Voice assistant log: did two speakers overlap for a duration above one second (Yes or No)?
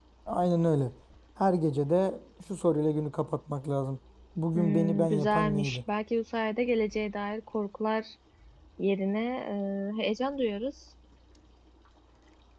Yes